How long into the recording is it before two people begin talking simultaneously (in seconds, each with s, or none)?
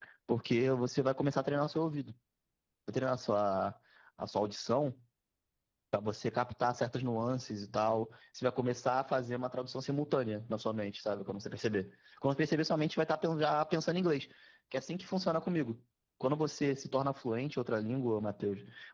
none